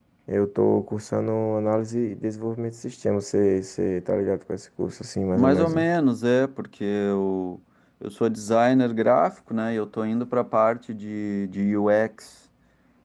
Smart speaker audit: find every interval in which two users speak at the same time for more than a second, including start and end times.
none

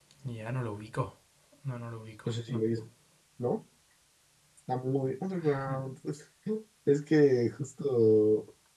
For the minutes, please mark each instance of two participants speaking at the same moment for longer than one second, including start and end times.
none

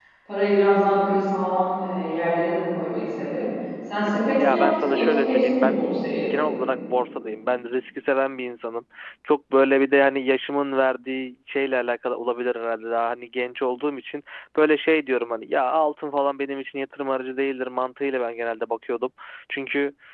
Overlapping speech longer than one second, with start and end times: 4.3-5.8

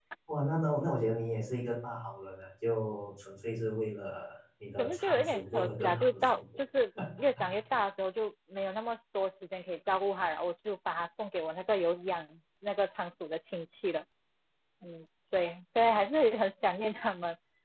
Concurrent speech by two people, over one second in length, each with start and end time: 4.8-6.4

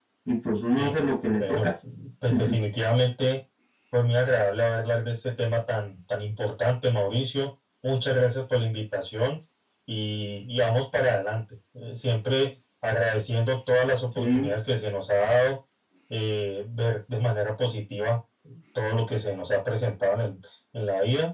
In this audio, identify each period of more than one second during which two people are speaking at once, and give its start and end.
none

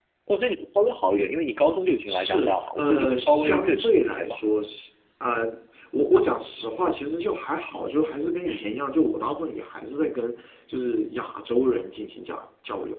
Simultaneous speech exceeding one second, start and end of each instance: 2.1-4.4

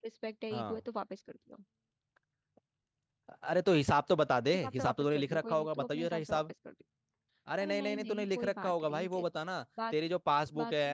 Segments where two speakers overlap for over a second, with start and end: 4.5-6.4, 7.6-9.2

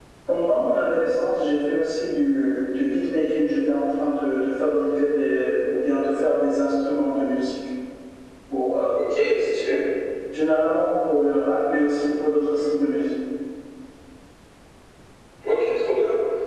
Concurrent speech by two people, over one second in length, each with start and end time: none

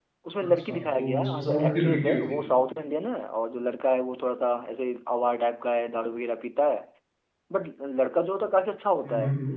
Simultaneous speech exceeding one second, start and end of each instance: 0.7-2.2

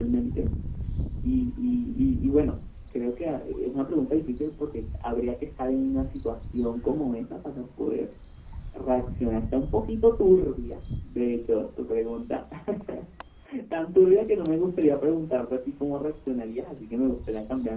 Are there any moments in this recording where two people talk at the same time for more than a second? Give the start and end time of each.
none

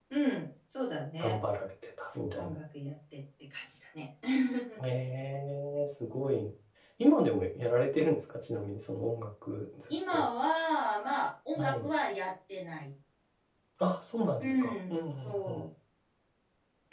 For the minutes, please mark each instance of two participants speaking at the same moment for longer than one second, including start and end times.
14.4-15.6

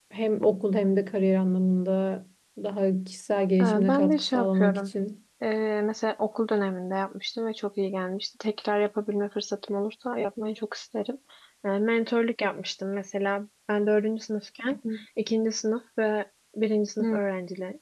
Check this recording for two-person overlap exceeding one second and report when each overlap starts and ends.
3.6-4.9

